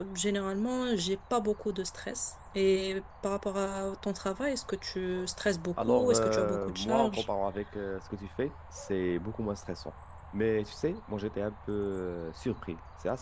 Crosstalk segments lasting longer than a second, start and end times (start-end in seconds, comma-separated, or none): 5.8-7.2